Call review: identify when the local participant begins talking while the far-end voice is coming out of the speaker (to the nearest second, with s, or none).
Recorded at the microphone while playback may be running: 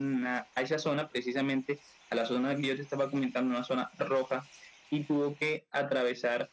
none